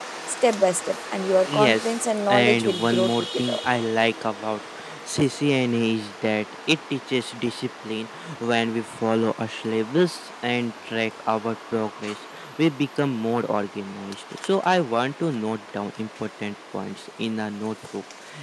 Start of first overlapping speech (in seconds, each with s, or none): 1.4 s